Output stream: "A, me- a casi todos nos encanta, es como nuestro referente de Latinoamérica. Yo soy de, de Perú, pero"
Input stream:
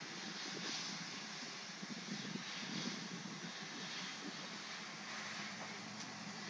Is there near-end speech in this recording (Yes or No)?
No